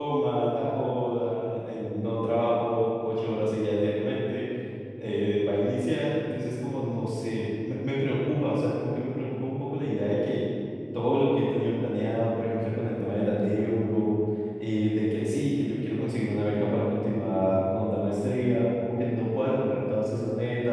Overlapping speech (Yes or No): No